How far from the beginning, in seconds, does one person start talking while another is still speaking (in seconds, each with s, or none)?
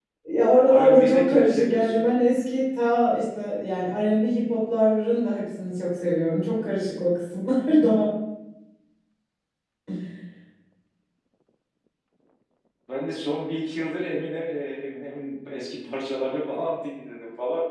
0.7 s